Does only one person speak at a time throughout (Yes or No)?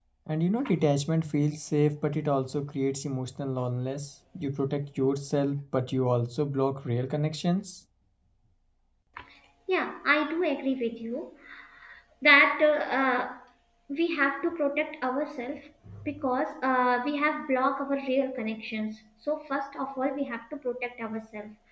Yes